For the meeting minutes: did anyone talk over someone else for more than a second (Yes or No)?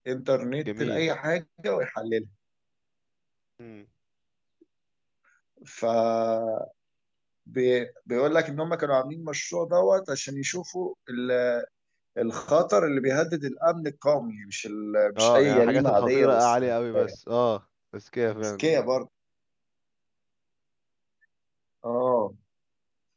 Yes